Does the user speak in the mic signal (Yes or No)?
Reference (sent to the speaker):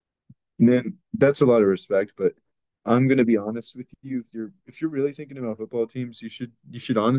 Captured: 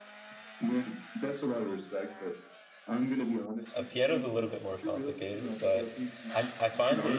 Yes